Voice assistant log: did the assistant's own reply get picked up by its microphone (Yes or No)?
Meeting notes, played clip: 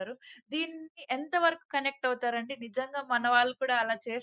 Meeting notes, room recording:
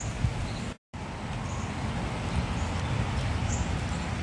No